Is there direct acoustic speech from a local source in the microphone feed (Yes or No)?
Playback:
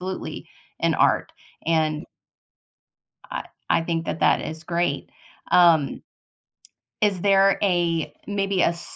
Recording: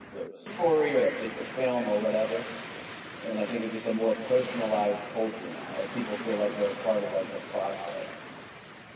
Yes